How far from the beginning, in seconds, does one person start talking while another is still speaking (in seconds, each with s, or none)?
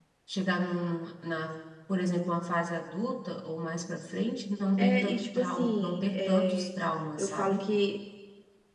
4.8 s